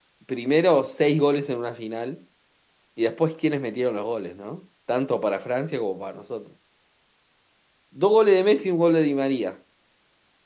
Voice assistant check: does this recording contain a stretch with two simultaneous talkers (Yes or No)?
No